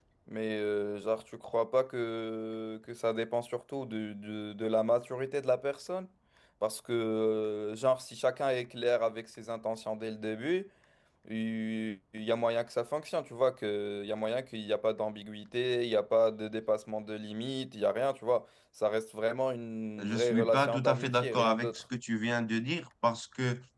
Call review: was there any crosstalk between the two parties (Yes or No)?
Yes